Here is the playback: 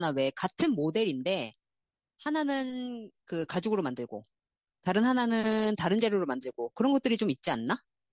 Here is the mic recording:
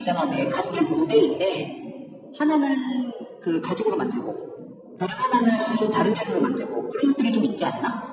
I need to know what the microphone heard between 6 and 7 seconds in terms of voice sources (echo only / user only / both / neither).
echo only